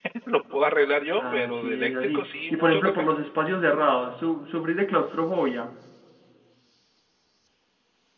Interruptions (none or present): present